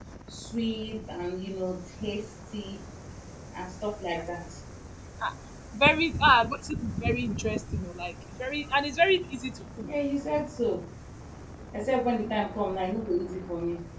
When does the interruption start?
none

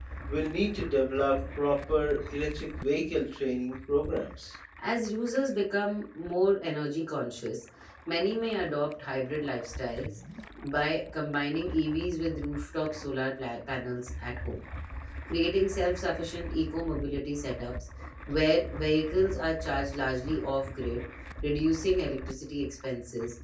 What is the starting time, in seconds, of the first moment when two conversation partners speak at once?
none

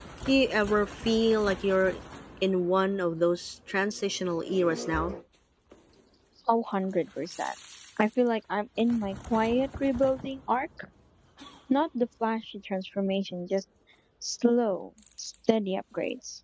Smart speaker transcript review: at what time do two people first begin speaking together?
none

